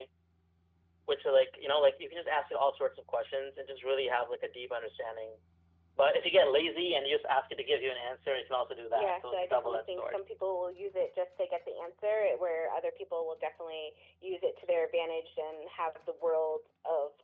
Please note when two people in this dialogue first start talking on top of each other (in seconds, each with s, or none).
8.9 s